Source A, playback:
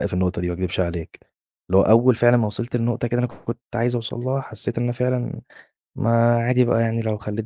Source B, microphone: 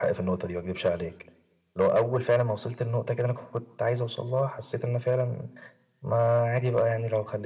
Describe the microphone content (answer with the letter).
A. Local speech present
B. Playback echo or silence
B